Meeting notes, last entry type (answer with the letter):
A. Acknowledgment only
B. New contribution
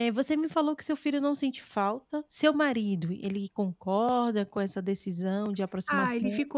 B